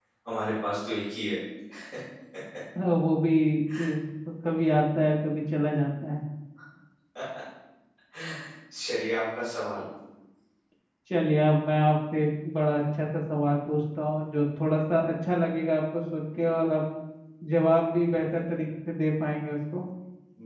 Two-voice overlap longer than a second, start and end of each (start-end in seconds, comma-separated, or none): none